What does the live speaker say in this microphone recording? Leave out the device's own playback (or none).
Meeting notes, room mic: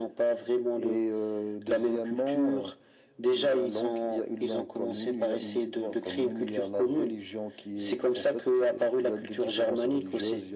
none